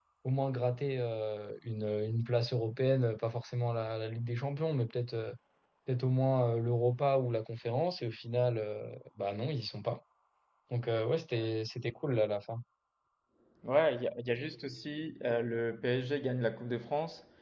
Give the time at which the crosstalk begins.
none

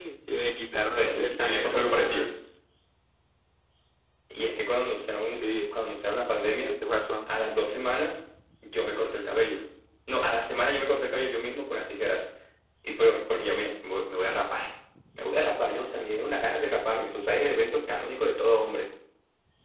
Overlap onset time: 0.9 s

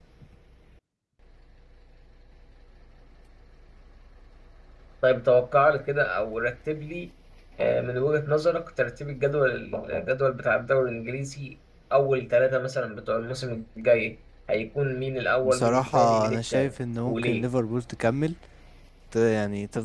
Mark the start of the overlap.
15.4 s

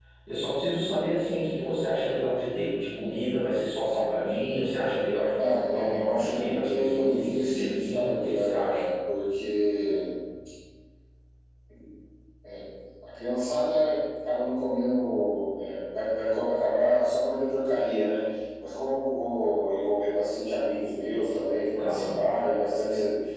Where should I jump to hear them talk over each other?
5.4 s

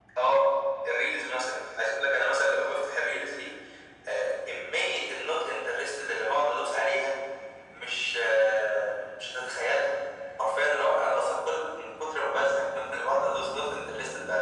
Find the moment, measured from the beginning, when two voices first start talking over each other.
none

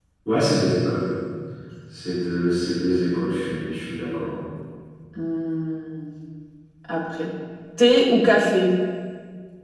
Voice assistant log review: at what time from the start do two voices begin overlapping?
none

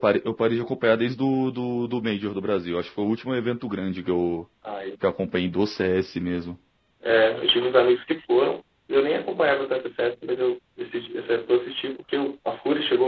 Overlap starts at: none

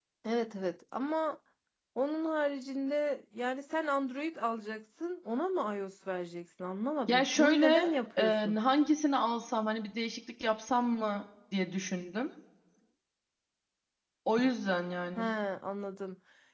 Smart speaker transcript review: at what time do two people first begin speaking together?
7.1 s

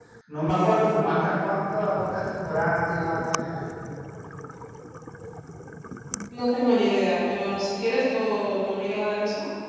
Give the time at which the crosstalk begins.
none

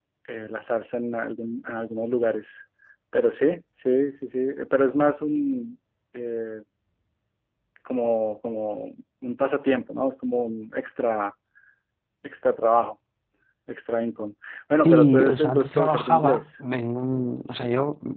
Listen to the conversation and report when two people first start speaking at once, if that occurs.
14.8 s

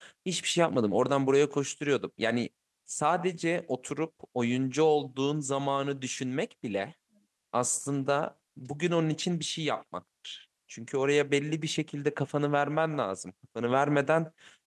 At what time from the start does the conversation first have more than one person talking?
none

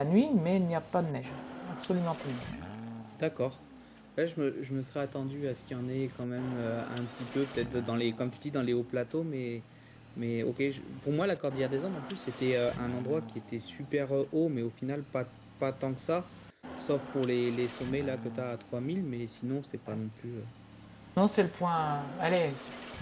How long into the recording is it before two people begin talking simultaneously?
none

